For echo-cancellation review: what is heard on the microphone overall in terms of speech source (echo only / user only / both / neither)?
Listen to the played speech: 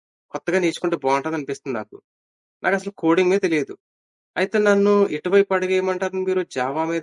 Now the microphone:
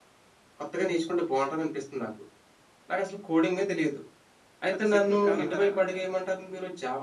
both